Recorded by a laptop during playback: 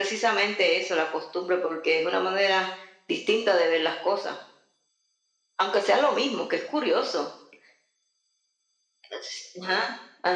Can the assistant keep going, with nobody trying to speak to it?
Yes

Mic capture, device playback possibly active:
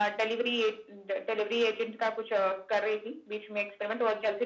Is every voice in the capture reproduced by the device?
Yes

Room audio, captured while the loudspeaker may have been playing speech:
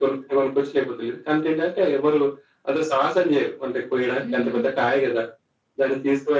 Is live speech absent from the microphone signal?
No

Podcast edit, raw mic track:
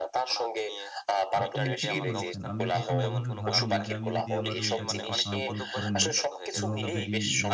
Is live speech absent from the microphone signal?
No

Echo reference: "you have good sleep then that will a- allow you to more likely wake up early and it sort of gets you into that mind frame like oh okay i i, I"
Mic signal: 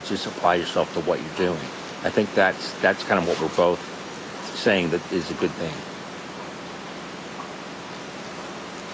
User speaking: Yes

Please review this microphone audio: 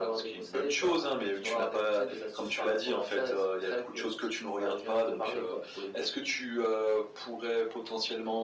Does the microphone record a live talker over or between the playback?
No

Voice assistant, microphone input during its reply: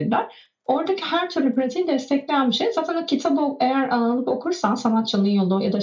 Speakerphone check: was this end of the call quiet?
Yes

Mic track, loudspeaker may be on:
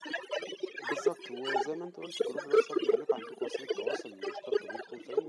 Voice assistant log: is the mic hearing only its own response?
No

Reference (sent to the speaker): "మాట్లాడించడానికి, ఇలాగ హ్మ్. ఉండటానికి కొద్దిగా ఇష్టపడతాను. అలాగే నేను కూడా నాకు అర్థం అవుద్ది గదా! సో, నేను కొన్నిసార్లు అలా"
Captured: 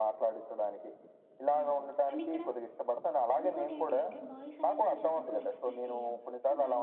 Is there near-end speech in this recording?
Yes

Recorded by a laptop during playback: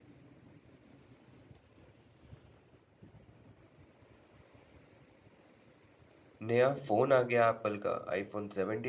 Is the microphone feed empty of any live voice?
No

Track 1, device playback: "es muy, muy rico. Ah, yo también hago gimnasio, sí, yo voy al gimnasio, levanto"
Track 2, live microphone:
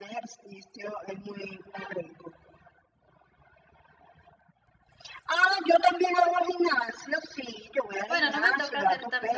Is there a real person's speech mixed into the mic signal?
Yes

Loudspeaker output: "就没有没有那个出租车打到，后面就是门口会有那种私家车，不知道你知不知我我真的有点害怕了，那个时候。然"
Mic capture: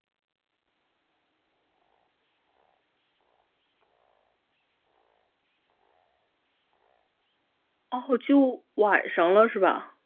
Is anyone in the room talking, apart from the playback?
Yes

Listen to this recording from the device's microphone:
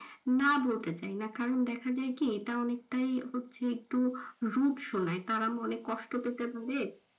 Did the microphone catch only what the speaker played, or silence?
Yes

